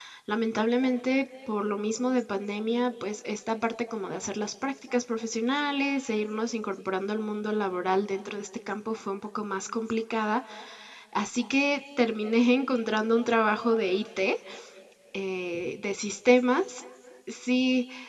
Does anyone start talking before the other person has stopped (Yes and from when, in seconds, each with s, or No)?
No